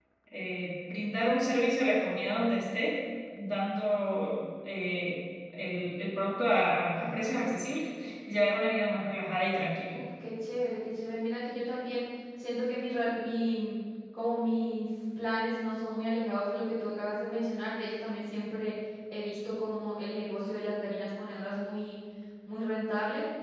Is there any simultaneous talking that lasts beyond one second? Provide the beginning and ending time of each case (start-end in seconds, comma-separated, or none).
none